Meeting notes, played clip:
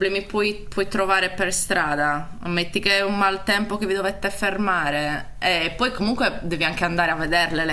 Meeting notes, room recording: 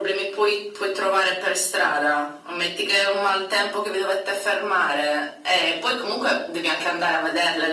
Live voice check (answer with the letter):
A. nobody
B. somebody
A